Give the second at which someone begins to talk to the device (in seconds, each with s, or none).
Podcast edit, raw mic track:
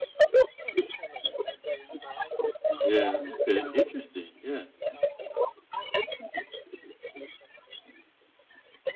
2.8 s